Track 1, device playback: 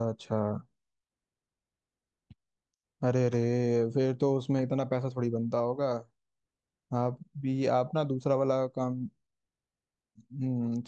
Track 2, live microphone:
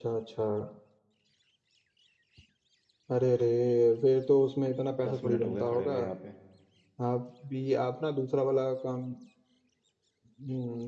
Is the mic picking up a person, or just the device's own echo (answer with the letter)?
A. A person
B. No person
A